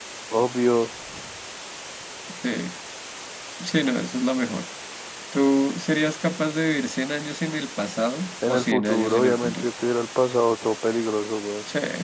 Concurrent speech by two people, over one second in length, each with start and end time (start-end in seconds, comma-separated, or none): 8.5-9.7